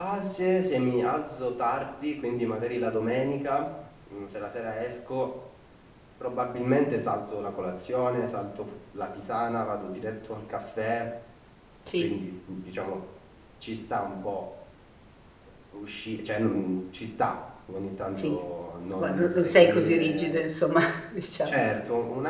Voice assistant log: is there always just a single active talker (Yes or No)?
No